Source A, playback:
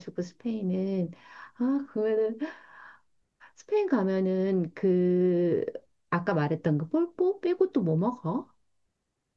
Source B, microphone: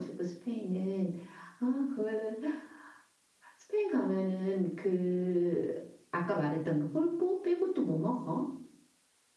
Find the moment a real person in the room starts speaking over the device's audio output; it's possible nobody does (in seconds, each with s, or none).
none